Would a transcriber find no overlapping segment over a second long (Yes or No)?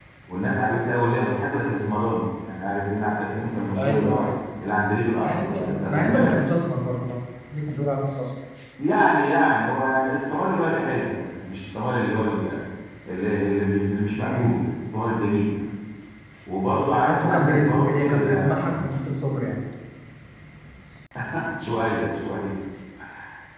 No